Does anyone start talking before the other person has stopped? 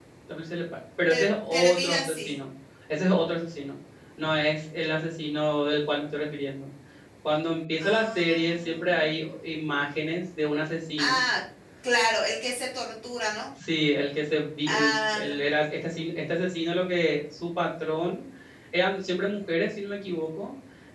Yes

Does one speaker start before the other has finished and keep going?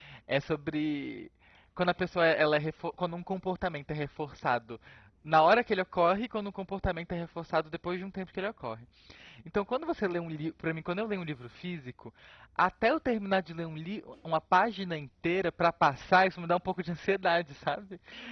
No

